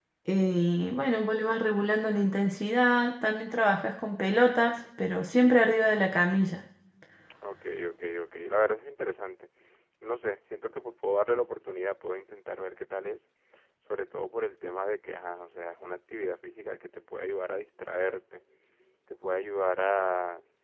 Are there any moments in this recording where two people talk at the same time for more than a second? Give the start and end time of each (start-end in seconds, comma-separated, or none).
none